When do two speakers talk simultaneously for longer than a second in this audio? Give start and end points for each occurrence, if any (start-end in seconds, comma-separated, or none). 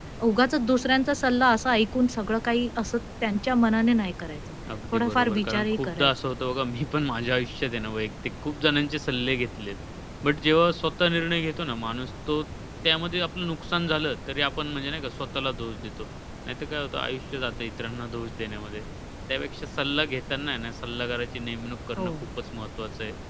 4.9-6.3